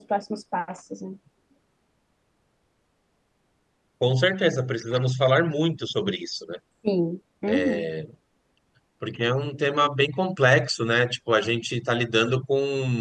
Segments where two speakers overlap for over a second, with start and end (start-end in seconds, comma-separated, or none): none